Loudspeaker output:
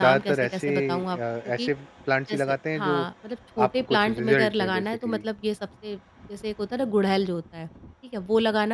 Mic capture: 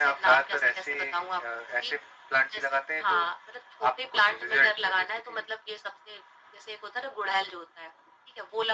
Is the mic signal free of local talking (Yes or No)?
Yes